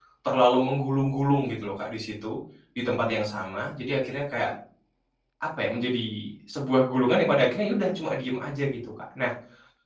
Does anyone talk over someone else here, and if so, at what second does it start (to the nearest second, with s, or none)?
none